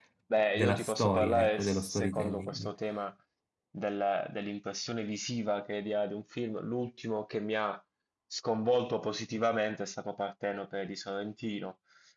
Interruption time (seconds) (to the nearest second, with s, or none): 1 s